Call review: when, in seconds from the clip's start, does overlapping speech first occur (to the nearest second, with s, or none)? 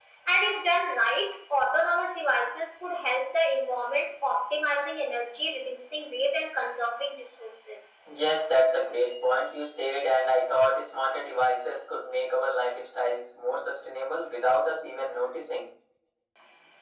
none